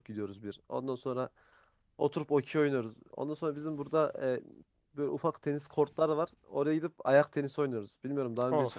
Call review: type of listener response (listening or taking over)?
taking over